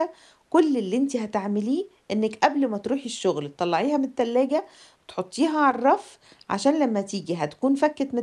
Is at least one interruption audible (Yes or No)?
No